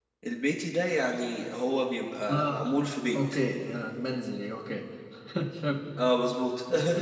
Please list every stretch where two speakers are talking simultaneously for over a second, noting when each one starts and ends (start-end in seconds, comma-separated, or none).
none